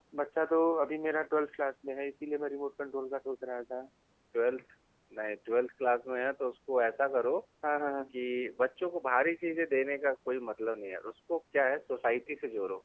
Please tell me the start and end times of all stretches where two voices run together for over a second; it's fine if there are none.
none

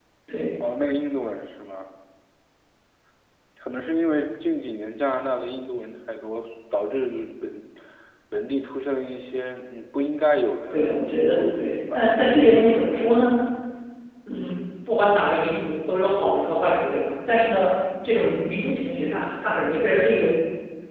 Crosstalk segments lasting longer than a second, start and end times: 10.7-11.9

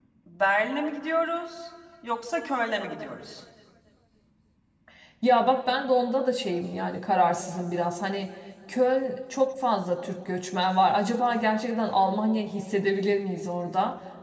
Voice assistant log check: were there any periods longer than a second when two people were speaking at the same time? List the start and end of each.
none

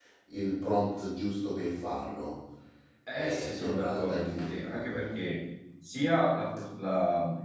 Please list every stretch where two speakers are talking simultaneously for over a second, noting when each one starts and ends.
3.1-5.1

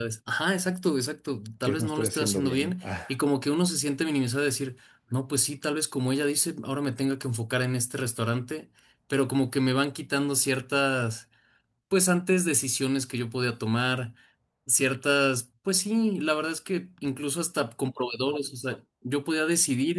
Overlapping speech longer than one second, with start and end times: 1.6-3.1

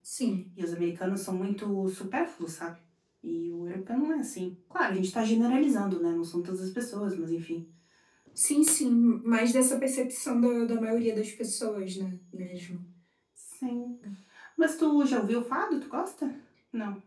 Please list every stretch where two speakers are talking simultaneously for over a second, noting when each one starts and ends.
none

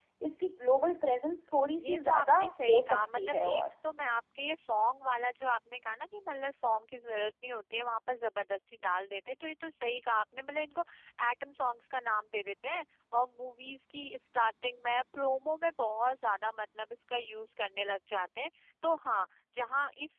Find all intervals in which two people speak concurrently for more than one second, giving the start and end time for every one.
1.8-3.6

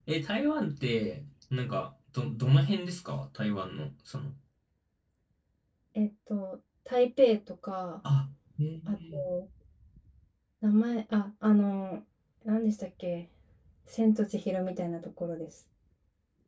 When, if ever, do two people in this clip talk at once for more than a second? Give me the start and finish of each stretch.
none

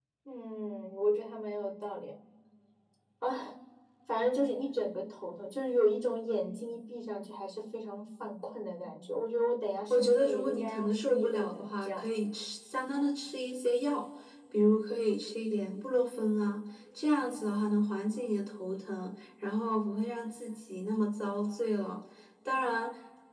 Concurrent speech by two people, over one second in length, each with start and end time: 9.9-12.0

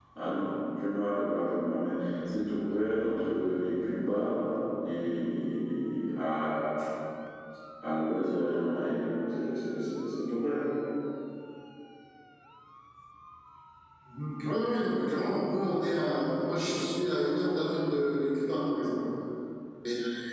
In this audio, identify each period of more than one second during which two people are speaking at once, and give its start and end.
none

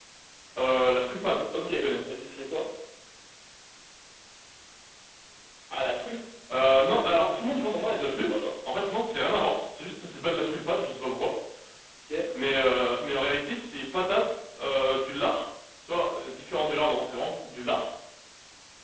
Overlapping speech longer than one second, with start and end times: 6.9-8.3

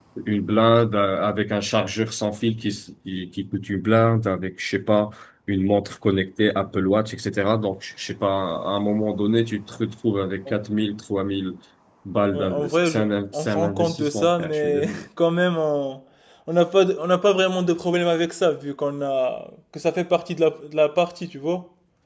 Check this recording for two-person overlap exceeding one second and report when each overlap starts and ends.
12.3-14.8

